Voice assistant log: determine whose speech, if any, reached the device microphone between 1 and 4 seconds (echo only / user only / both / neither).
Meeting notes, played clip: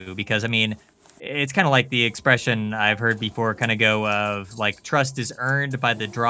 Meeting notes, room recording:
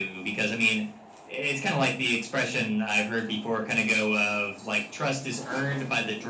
echo only